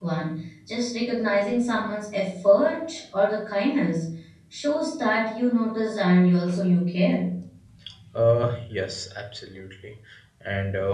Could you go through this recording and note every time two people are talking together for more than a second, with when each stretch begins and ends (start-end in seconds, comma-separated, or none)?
none